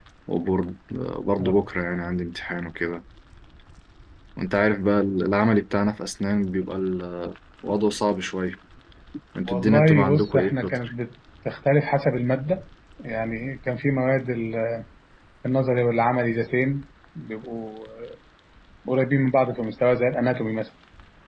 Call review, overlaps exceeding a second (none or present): present